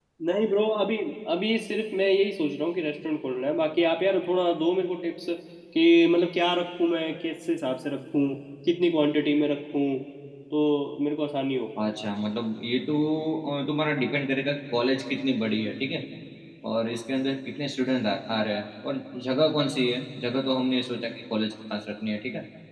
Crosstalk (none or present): none